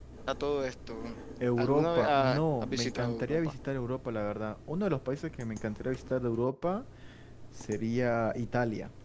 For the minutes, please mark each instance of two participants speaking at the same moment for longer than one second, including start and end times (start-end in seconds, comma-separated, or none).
1.6-3.5